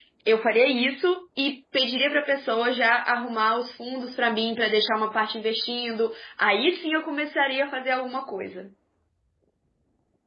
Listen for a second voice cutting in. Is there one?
No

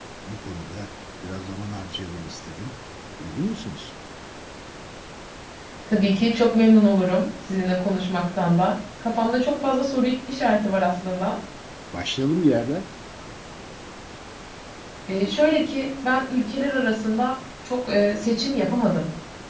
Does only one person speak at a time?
Yes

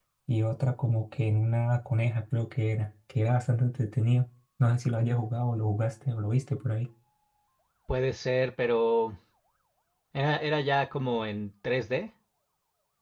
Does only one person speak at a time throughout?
Yes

